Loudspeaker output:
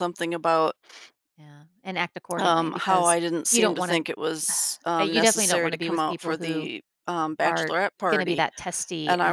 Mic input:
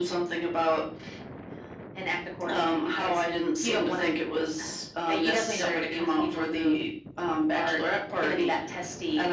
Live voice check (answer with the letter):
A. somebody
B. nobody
B